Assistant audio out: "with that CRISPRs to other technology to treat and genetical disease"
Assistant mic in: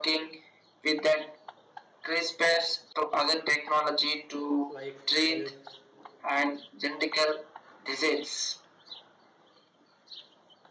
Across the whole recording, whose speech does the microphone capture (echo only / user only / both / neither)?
both